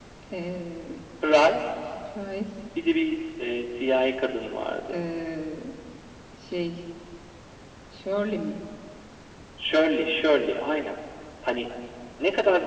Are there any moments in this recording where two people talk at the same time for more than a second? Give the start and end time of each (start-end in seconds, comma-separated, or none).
none